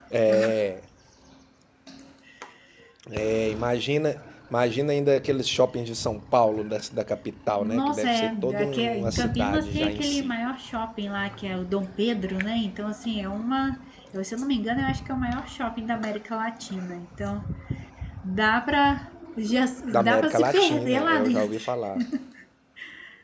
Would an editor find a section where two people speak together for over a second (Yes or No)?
Yes